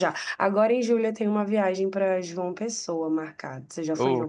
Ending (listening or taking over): taking over